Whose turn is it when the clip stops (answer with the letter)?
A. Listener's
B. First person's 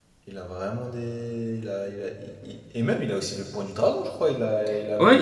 A